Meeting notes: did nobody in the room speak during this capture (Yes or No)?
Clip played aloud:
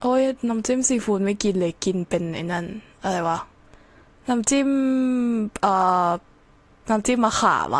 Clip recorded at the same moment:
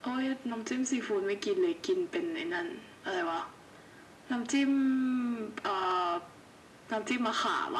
Yes